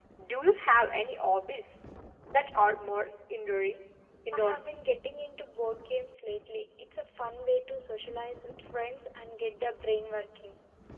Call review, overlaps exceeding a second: none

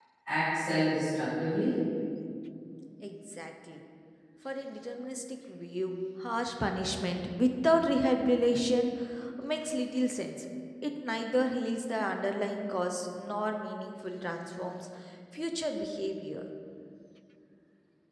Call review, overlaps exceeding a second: none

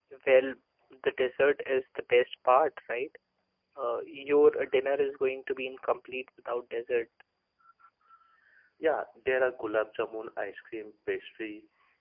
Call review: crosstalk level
none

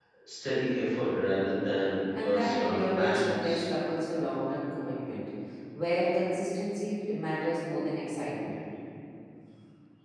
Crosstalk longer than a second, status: present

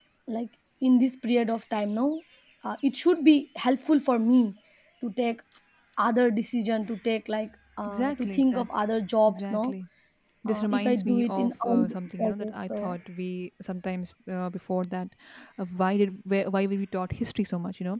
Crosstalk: present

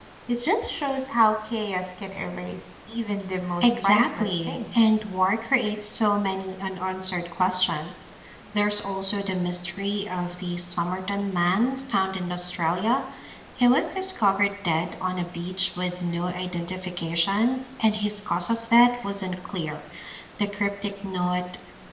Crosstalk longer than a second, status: present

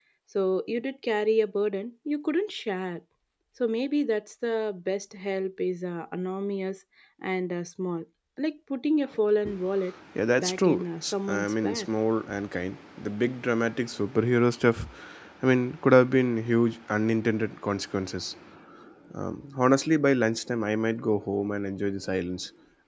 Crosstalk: present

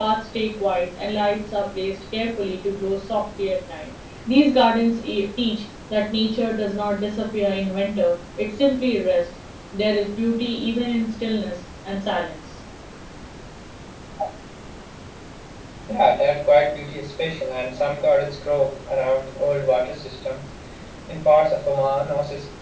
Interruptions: none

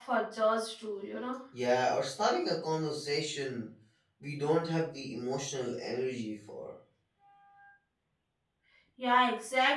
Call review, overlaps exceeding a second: none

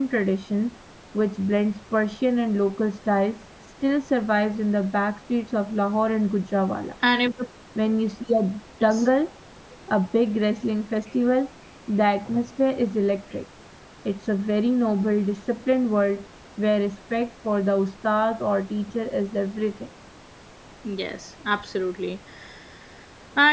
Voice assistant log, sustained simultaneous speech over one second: none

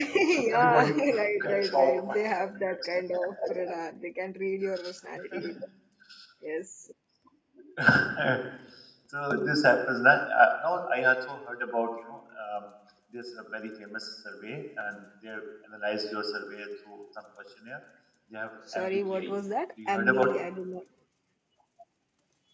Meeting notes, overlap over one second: present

